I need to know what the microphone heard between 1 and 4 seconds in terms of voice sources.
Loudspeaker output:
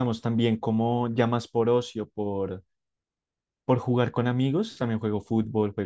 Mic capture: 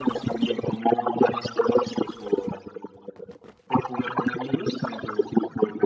echo only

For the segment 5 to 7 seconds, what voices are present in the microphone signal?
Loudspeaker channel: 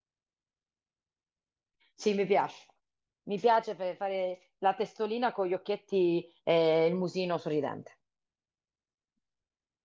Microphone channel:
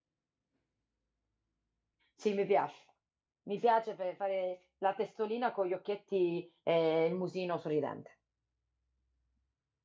echo only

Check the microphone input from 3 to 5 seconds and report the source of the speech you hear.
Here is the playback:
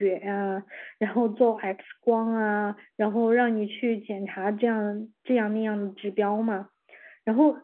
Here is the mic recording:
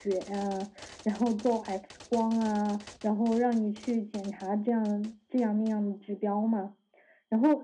echo only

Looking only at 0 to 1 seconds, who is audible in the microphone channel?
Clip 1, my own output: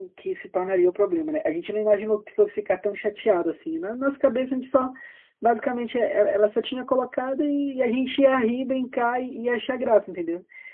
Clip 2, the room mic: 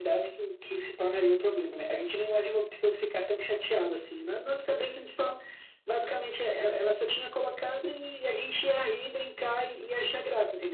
echo only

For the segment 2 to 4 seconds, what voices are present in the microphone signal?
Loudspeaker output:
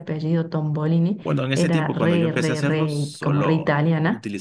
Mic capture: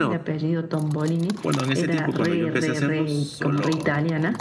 echo only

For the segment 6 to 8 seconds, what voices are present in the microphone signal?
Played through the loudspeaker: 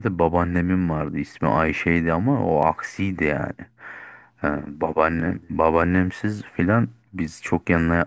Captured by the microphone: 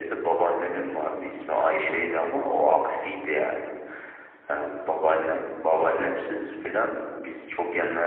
echo only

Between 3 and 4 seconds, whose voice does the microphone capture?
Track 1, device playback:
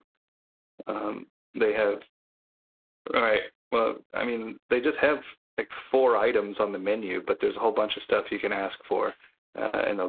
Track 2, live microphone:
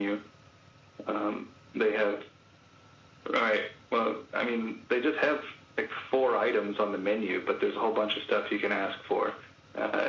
echo only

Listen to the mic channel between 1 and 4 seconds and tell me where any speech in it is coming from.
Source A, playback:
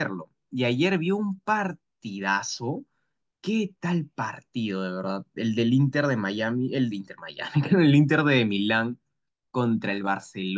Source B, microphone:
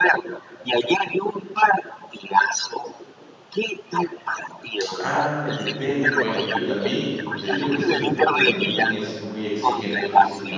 echo only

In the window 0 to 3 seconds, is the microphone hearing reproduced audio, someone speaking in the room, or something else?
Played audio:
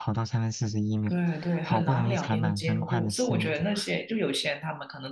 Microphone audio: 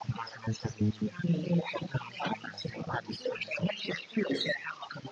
echo only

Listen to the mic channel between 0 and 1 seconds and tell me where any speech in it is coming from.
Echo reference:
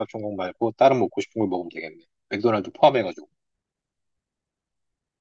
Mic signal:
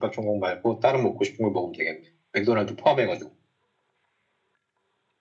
echo only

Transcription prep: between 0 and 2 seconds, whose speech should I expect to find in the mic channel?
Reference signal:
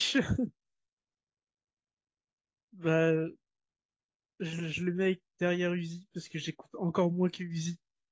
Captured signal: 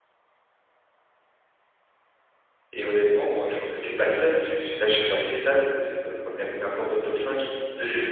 neither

